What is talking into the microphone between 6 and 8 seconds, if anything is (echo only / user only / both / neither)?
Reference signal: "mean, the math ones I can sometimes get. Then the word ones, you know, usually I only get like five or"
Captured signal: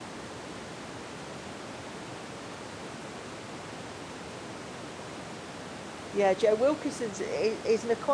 user only